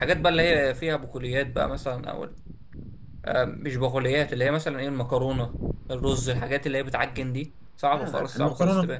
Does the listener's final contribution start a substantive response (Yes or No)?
Yes